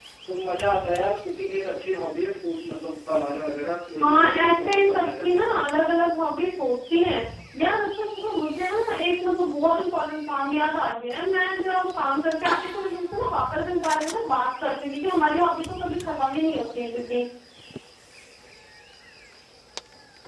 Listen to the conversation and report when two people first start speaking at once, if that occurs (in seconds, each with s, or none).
4.0 s